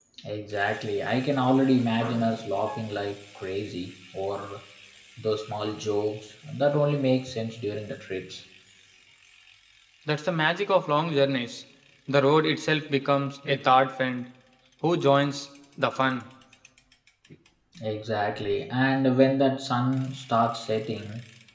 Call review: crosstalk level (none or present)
none